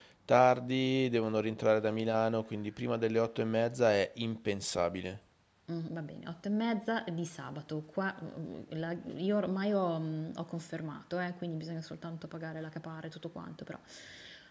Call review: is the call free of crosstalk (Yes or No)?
Yes